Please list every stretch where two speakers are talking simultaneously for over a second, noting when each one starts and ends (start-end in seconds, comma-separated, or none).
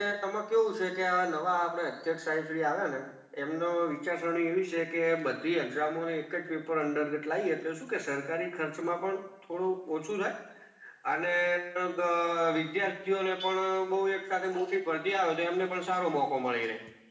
none